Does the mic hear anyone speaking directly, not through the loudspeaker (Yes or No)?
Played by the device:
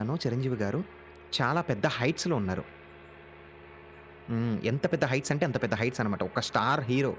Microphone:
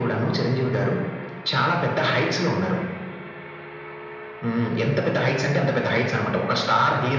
No